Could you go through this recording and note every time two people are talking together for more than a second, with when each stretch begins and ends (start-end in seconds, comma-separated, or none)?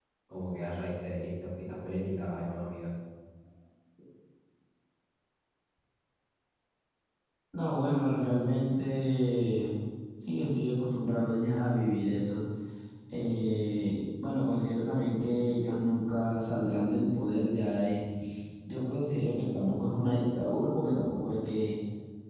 none